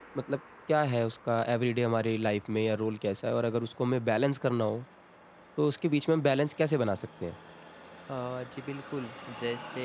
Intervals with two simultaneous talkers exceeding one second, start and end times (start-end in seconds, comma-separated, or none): none